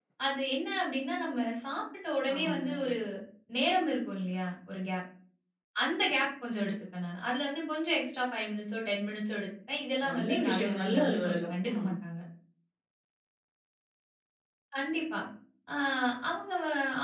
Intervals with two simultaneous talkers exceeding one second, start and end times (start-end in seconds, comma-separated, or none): 10.1-11.8